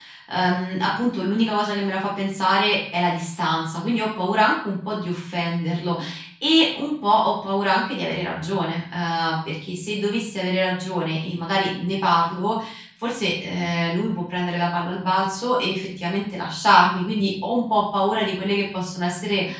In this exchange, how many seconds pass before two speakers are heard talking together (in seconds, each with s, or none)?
none